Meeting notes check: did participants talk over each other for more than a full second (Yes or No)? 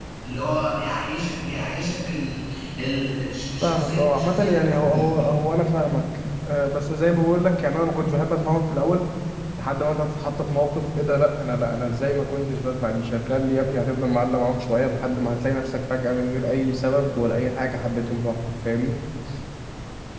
Yes